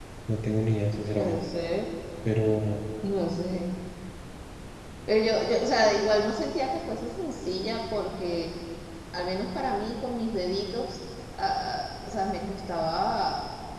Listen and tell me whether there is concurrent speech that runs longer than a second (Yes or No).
No